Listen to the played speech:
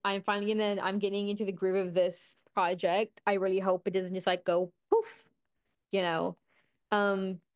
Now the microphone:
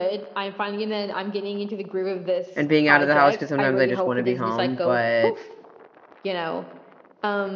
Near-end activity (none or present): present